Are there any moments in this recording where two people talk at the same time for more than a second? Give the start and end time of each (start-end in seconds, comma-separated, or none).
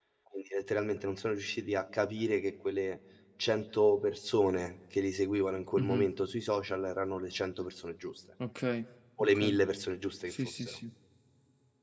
none